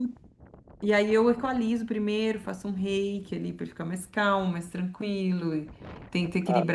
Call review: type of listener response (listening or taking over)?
listening